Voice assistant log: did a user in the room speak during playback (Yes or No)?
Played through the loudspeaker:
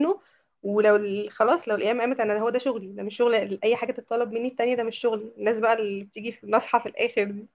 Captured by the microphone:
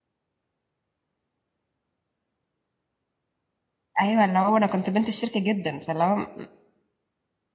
Yes